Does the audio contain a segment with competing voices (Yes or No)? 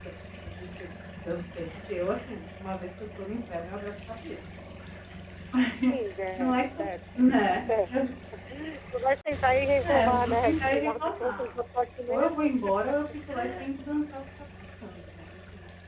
Yes